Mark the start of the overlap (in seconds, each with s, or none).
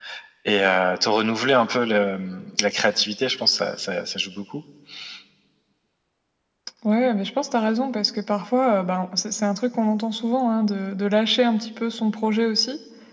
none